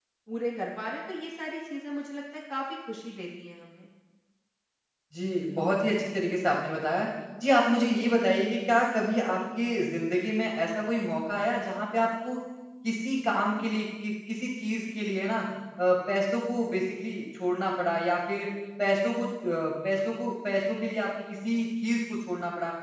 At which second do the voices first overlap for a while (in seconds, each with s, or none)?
none